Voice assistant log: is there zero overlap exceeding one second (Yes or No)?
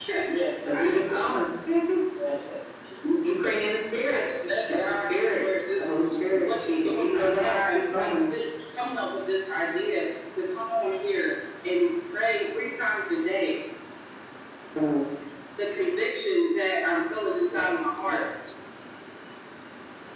No